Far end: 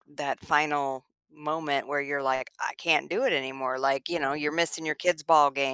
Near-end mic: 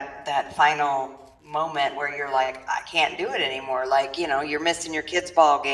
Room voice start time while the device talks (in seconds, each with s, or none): none